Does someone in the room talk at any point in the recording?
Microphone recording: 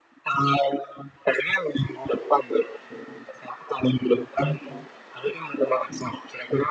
No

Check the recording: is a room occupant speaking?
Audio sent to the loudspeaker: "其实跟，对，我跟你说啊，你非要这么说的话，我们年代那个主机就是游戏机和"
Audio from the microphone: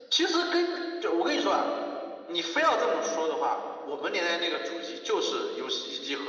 No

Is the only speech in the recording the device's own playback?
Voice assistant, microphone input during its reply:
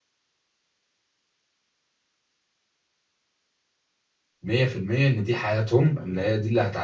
No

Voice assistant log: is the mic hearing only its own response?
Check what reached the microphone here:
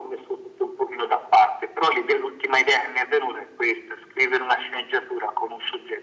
Yes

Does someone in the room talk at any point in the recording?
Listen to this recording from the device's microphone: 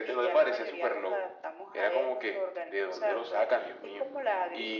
No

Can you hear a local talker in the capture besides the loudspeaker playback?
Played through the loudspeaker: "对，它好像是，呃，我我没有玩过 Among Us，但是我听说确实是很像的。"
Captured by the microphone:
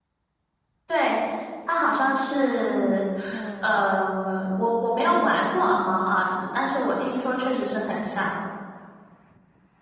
Yes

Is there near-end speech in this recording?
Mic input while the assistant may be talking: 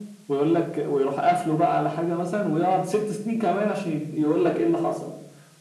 No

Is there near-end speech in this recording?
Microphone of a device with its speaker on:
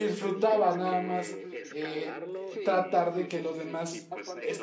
Yes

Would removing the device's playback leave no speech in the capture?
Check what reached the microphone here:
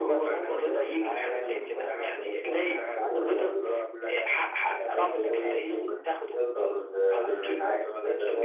No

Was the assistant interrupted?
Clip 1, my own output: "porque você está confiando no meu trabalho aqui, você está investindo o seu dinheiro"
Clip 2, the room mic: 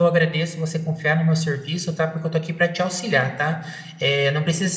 Yes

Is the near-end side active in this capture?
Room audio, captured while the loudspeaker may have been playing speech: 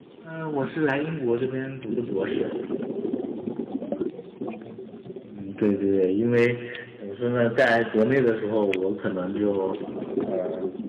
Yes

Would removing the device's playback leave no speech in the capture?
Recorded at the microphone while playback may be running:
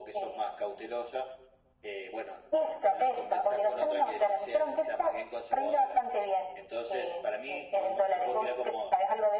Yes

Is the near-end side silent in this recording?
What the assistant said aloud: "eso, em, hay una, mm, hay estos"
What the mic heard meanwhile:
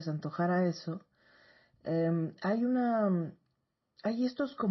Yes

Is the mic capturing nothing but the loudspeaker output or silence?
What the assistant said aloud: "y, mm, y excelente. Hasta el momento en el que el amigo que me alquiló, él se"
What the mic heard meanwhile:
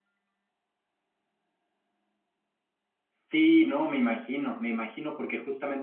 No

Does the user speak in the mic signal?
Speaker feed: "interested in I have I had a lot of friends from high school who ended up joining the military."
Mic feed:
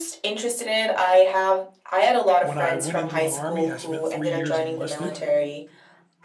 Yes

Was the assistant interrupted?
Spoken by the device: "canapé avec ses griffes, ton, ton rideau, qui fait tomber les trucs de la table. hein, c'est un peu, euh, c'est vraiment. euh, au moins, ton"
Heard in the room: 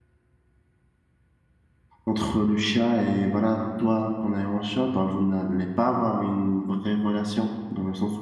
Yes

